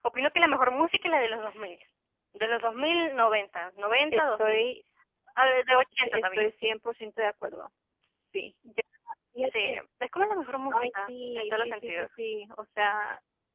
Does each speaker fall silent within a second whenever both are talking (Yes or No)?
No